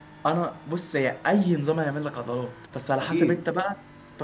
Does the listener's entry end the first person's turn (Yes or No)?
No